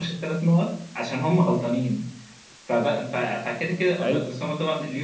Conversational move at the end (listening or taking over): listening